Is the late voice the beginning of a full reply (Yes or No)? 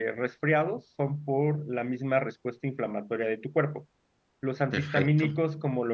No